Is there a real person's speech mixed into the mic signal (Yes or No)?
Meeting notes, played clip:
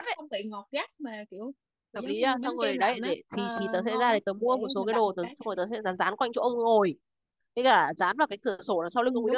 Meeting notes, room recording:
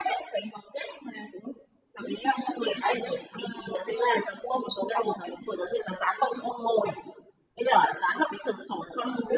No